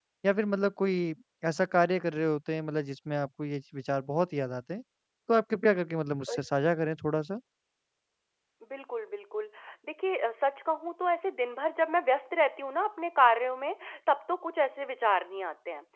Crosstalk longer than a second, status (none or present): none